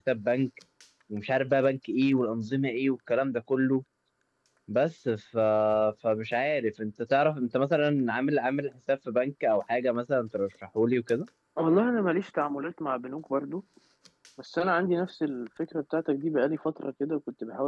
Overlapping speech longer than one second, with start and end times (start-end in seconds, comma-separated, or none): none